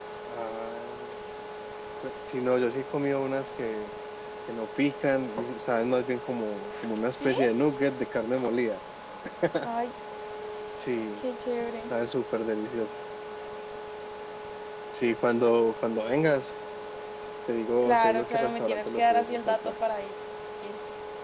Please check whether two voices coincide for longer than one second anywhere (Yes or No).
Yes